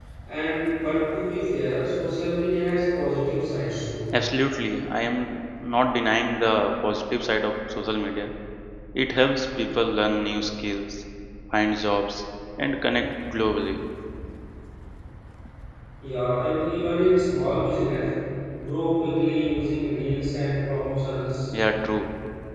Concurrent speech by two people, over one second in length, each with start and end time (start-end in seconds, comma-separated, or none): none